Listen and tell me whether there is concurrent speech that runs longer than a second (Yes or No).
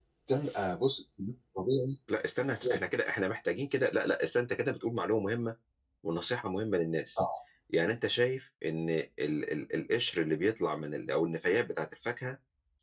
No